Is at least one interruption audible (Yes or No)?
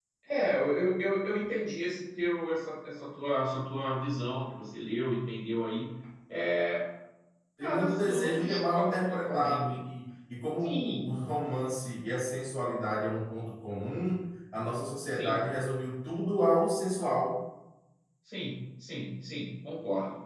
Yes